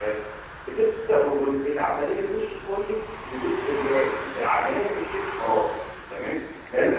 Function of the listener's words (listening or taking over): listening